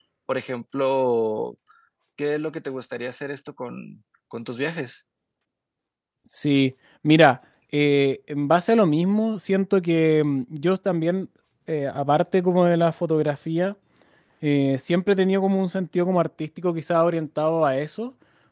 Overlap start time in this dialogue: none

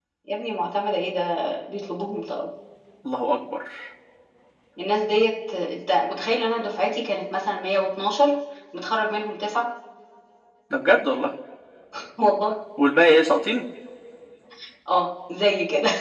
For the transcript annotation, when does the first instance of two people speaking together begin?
none

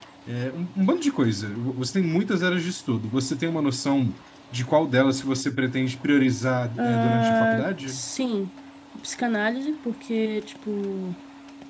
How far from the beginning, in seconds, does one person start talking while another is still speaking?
6.8 s

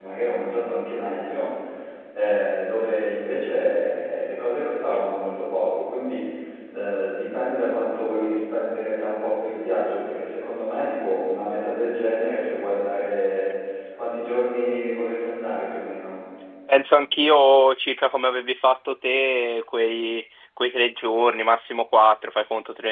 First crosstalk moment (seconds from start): none

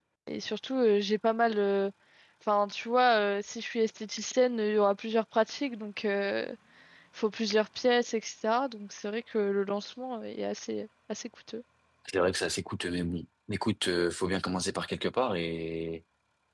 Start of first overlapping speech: none

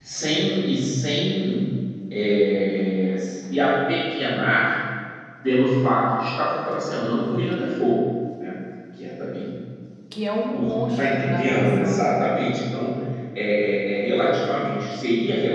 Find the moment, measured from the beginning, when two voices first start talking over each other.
10.5 s

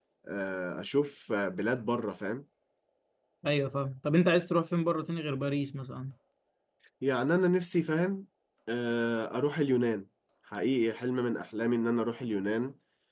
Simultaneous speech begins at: none

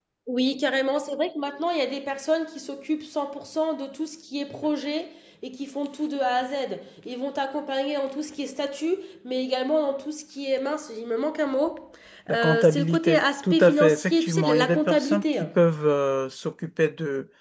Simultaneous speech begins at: 12.3 s

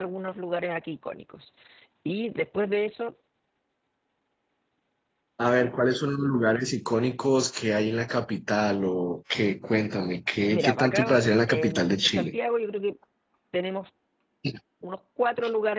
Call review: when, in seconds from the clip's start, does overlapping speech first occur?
10.5 s

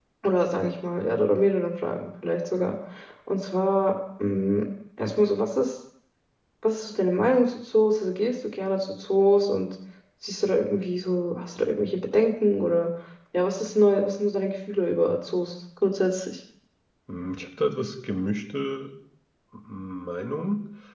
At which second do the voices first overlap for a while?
none

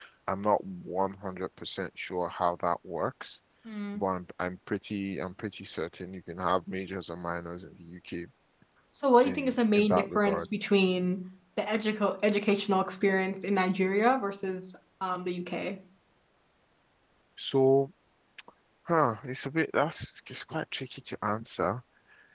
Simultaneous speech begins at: 9.2 s

